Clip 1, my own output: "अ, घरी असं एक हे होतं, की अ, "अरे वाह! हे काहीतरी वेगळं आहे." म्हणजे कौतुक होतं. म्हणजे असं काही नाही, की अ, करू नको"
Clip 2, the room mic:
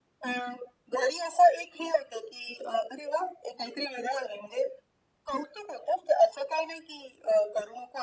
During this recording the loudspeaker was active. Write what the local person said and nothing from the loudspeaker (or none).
none